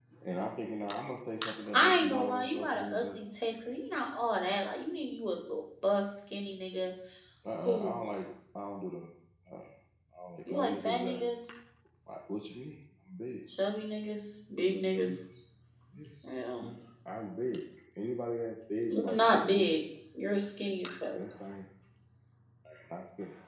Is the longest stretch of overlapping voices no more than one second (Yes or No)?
No